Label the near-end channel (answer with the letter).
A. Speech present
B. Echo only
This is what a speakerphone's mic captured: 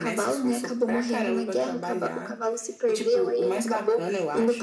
B